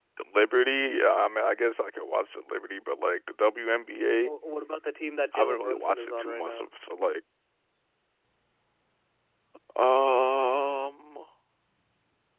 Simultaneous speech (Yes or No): Yes